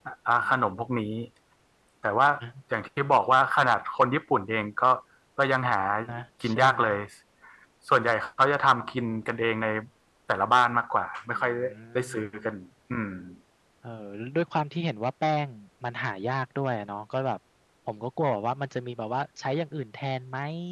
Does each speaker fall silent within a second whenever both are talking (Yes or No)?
No